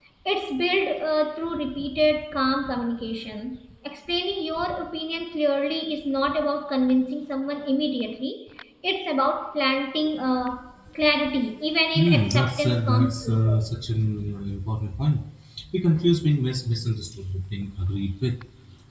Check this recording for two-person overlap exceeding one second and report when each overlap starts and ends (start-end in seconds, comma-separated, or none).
11.9-13.6